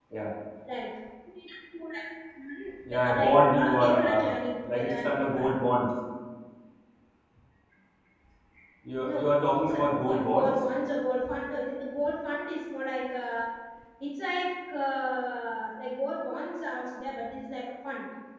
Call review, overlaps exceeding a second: present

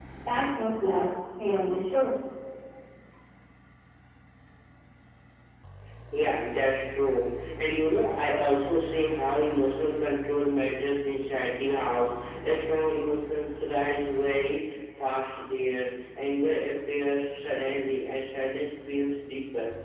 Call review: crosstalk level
none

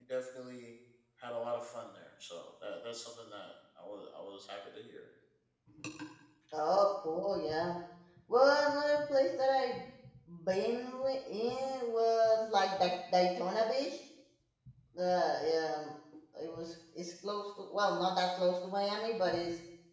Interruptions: none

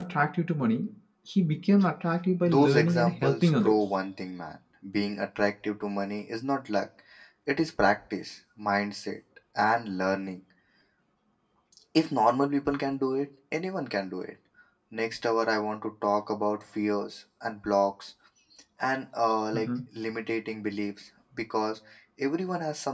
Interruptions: present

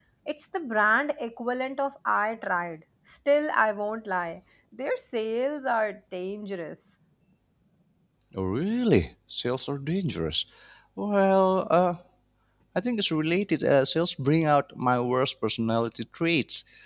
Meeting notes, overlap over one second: none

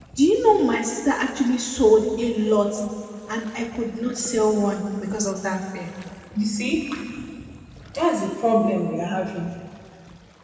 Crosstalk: none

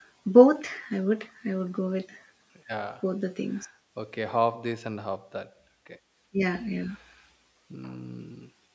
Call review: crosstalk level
none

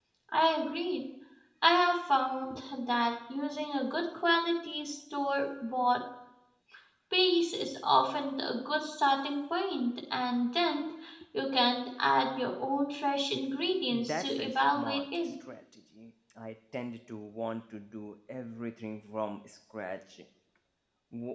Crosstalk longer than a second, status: present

